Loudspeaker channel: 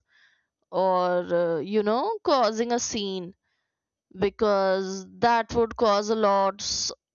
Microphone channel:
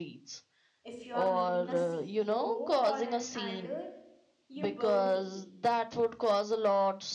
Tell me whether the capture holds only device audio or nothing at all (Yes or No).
No